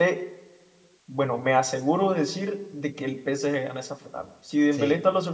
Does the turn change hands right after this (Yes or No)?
No